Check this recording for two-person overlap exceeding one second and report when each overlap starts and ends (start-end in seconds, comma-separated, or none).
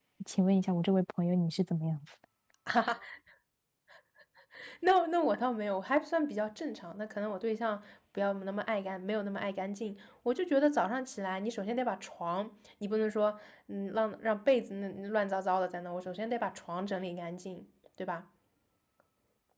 none